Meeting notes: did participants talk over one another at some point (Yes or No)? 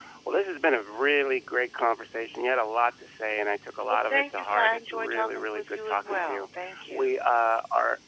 Yes